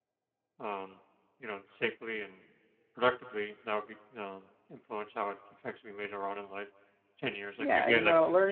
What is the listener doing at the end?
taking over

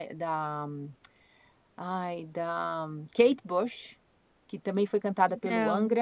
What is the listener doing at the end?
listening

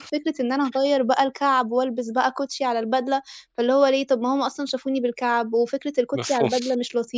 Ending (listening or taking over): listening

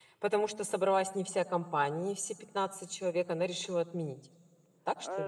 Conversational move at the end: taking over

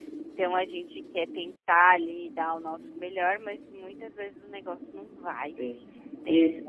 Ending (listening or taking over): taking over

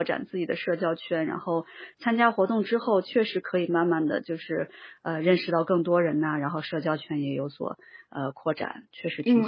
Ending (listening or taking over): taking over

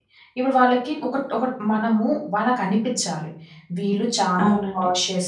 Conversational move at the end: listening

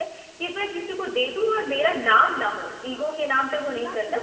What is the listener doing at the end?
listening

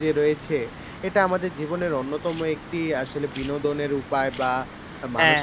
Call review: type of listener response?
listening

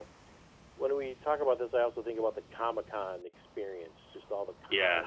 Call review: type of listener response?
listening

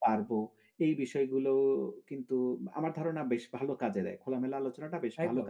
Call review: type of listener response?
taking over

